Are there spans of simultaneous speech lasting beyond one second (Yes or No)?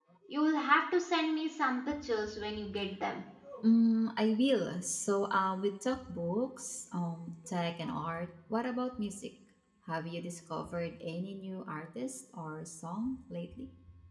No